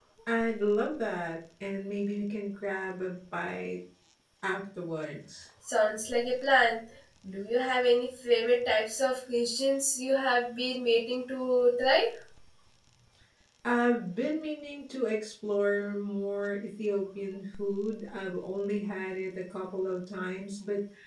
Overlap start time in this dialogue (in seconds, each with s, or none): none